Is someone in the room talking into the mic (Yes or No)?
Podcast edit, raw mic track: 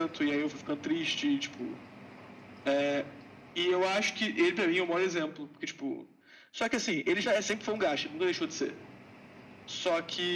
No